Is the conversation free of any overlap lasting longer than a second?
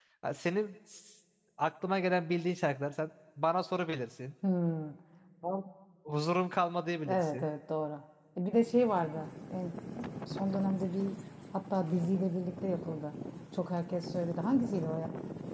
Yes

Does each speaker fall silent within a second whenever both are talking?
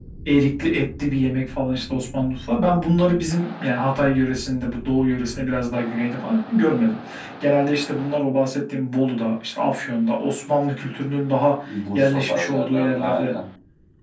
No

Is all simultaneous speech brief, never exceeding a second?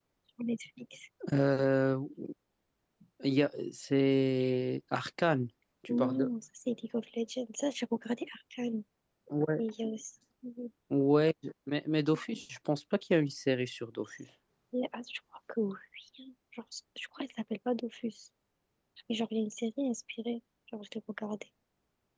Yes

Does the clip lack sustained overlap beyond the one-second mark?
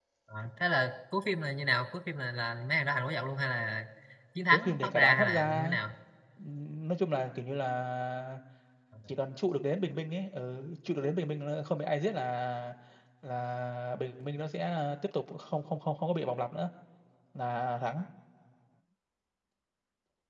No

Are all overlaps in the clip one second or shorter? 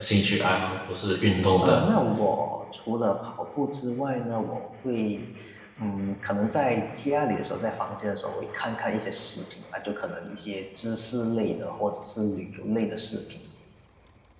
Yes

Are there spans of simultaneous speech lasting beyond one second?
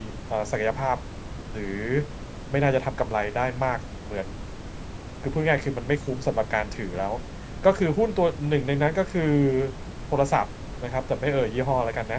No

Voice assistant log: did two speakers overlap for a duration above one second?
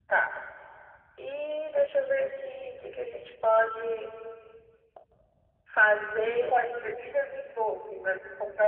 No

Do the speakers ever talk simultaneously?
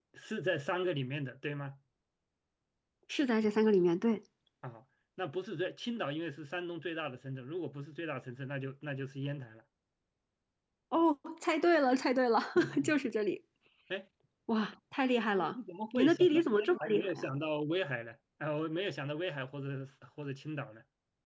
Yes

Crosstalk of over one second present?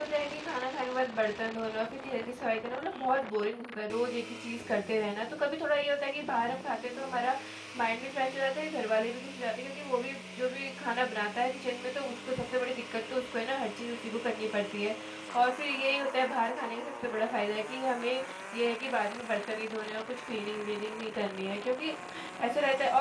No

